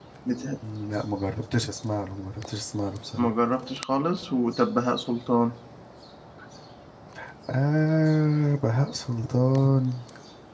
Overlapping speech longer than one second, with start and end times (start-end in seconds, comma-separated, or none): none